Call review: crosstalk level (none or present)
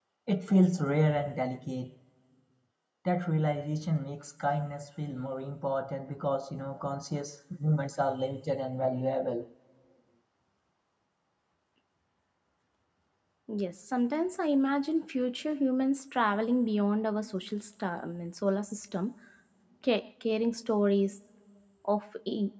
none